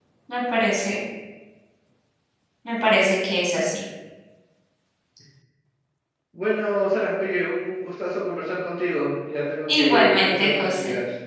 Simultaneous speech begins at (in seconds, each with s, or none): 9.7 s